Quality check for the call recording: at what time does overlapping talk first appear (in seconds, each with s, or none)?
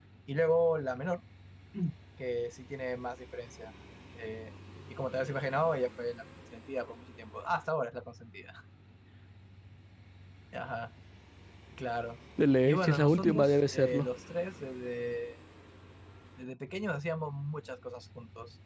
12.7 s